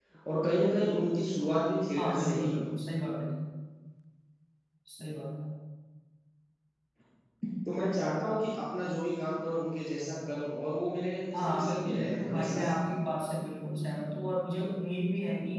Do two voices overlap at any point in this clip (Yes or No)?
Yes